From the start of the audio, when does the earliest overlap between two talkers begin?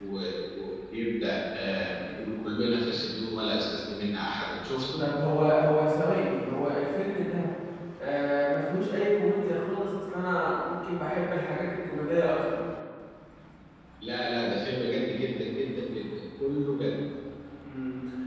none

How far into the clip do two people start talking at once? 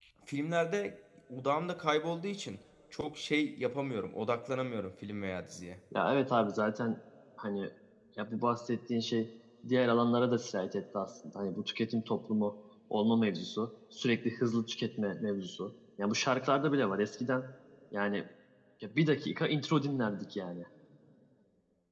none

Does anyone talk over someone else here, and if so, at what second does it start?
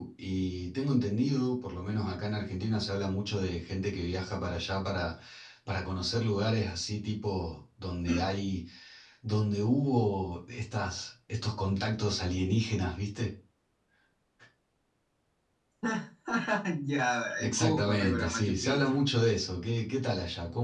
17 s

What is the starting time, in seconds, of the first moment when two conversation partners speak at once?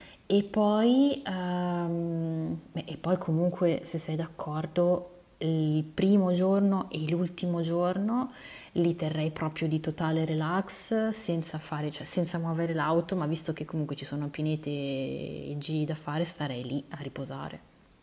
none

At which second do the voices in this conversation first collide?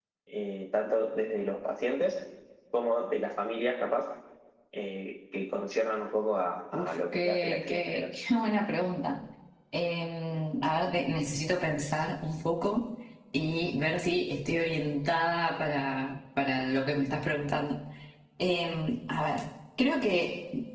7 s

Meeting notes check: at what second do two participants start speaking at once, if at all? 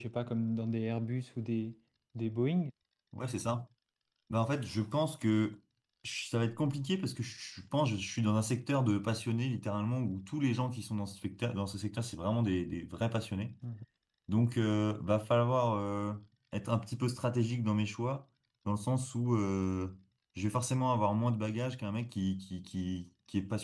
none

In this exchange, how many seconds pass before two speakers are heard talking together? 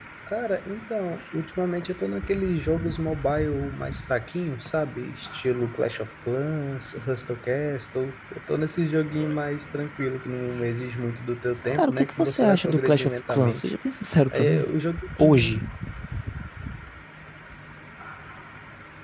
12 s

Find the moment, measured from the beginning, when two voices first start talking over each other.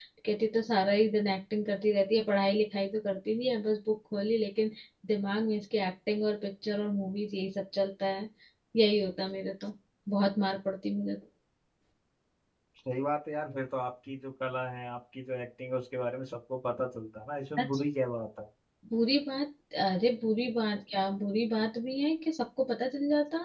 none

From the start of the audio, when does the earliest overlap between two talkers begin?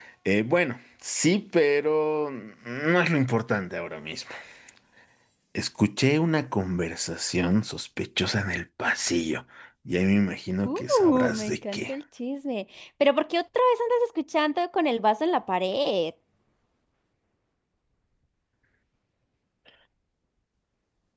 11 s

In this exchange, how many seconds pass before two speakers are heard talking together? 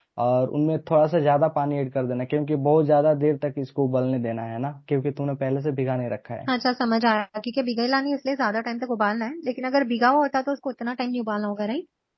none

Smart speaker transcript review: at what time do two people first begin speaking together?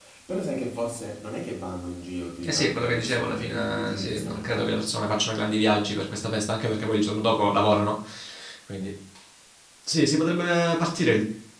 2 s

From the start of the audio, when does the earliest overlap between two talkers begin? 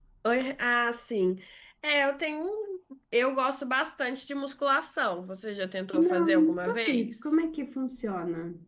6 s

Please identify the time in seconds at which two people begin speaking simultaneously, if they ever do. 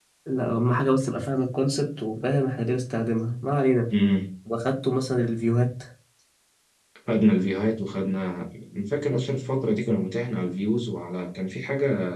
none

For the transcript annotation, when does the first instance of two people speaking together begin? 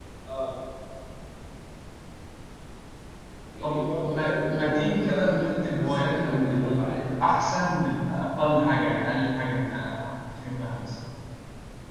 4 s

